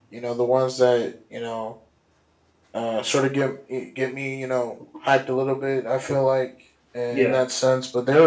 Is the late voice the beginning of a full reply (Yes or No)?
No